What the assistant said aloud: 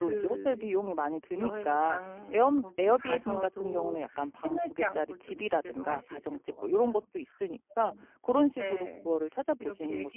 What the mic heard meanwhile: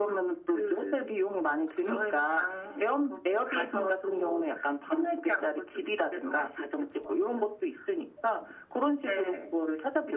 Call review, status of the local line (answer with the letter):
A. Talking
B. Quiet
B